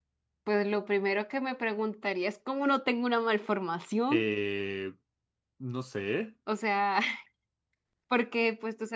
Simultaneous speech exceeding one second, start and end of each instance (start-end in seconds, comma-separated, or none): none